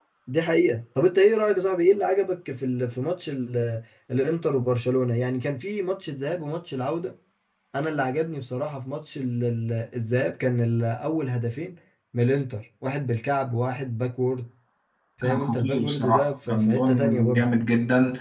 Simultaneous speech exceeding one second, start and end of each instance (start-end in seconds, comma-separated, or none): 15.2-17.5